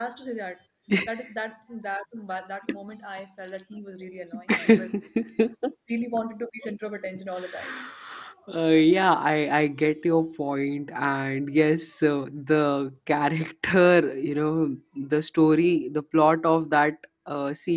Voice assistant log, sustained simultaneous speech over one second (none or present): none